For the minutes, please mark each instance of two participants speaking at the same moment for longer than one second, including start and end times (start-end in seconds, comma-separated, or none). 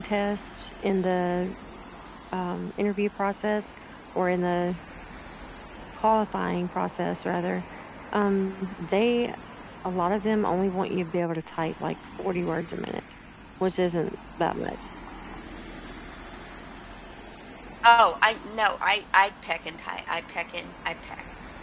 none